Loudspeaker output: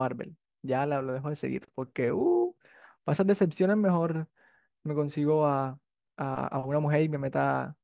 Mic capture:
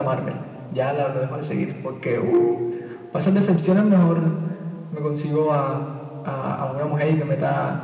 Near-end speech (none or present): none